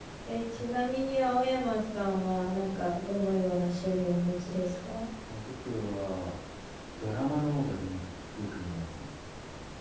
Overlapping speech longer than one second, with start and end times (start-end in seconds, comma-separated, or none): none